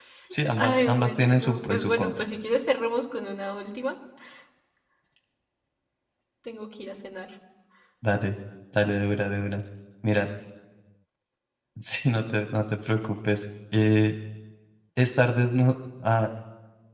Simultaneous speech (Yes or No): Yes